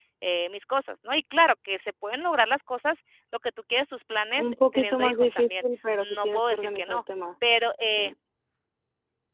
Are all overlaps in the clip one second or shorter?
No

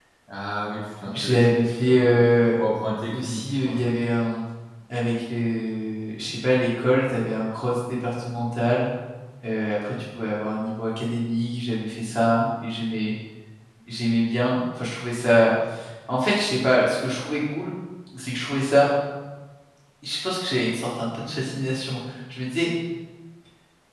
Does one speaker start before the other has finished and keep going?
Yes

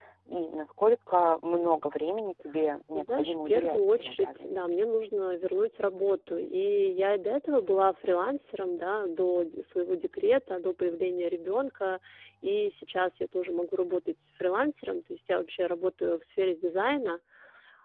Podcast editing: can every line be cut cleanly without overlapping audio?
No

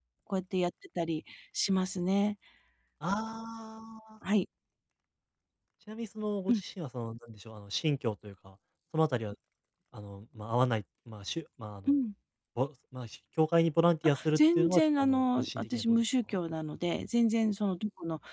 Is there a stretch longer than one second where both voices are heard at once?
Yes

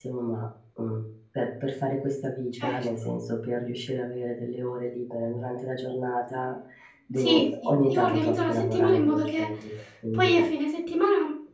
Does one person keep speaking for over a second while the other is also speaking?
Yes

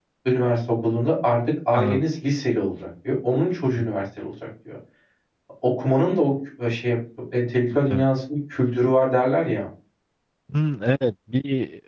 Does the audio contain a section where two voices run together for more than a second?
No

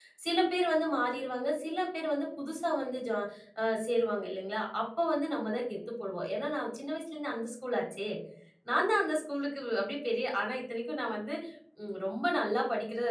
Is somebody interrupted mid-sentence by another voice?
No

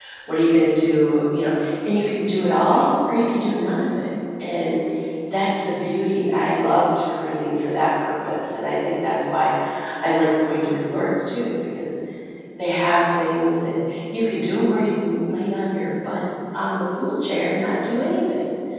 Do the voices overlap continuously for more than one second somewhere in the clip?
No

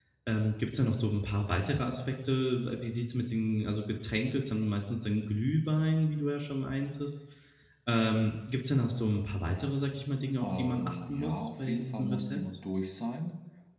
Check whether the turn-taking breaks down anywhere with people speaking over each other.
Yes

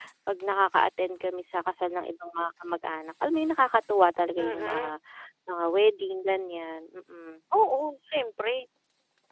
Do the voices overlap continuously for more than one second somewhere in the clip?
No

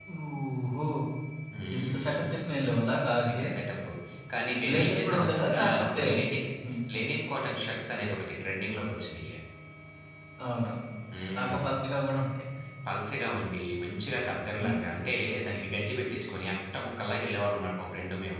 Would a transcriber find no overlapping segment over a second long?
No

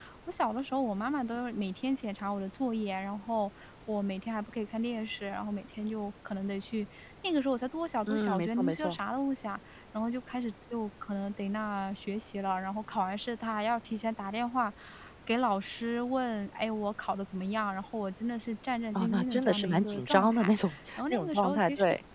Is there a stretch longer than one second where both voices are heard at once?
Yes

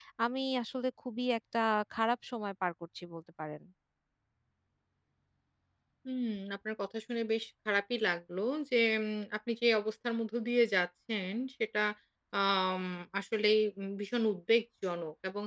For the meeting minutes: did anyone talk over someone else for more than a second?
No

